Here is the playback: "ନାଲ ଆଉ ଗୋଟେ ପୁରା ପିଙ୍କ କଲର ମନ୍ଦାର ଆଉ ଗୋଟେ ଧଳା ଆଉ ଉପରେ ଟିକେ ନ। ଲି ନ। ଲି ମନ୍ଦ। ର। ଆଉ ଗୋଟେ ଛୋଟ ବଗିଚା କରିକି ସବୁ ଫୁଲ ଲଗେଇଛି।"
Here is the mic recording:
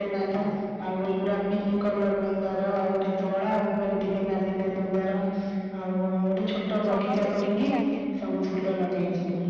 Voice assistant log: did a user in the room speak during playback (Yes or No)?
Yes